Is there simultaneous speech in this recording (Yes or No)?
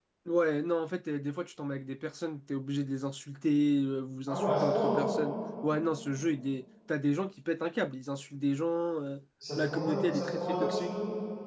Yes